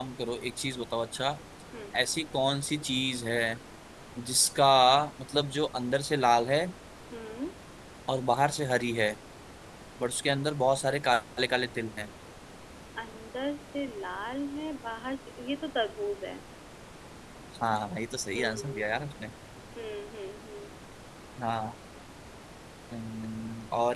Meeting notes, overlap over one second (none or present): none